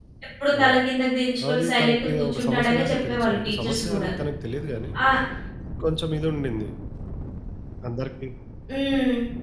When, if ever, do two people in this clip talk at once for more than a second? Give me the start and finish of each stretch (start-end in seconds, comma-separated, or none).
1.5-4.1